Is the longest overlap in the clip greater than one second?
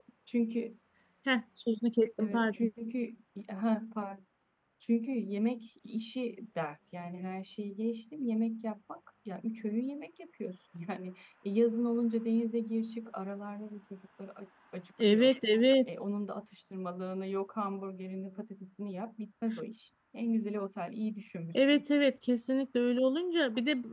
No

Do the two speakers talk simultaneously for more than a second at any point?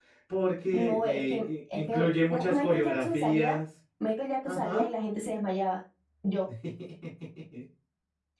Yes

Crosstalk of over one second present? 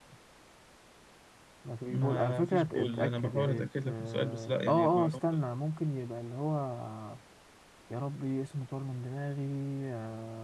Yes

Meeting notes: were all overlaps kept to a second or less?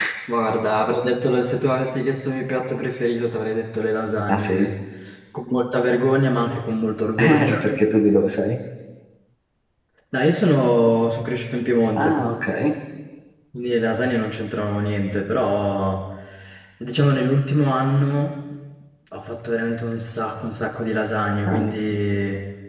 Yes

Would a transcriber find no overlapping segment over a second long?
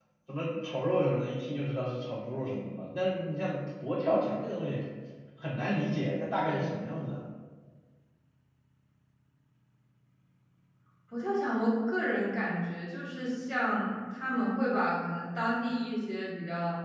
Yes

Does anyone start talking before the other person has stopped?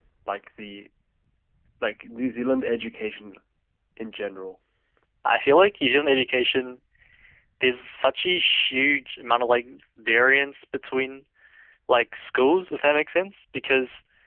No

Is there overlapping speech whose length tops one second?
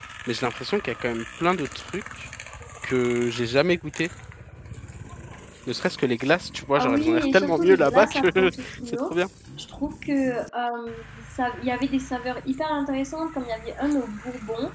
Yes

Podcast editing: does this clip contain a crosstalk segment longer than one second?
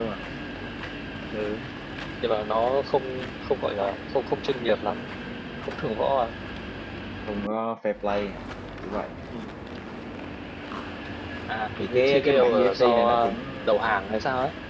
Yes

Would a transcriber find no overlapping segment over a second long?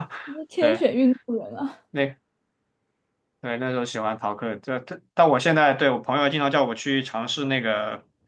Yes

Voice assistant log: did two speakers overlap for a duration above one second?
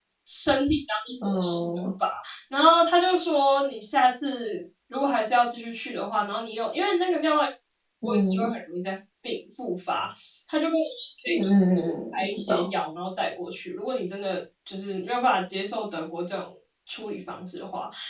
Yes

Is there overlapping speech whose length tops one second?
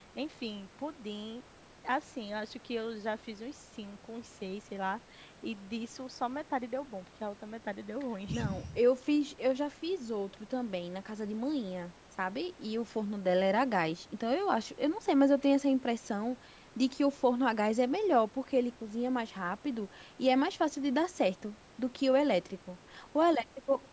No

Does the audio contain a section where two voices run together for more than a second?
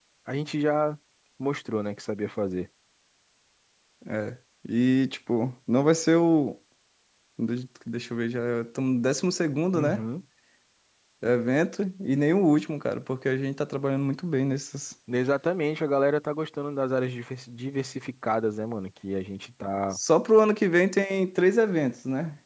No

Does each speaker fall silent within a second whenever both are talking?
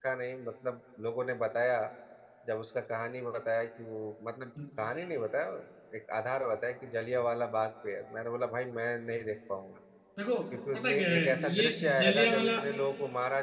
No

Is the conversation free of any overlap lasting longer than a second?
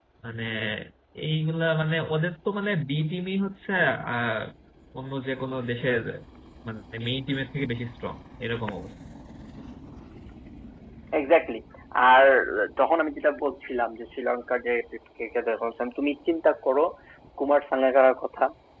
Yes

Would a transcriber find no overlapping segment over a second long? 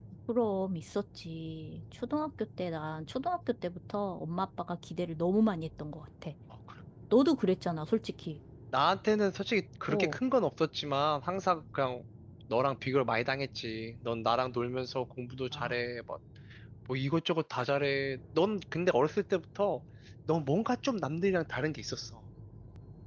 Yes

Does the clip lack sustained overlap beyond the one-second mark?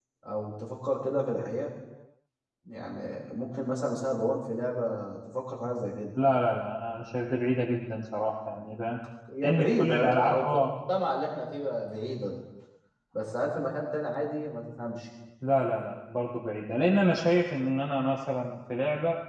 No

